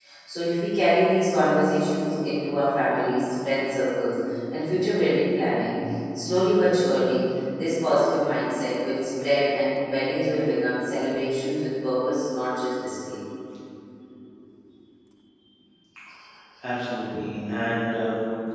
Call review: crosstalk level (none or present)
none